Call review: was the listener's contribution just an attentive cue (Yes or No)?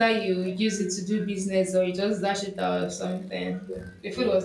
Yes